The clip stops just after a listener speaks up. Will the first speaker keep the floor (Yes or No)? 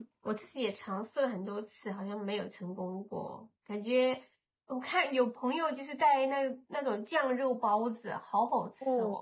No